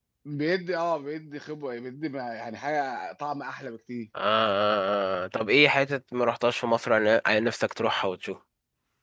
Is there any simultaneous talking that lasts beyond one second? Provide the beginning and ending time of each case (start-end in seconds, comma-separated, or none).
none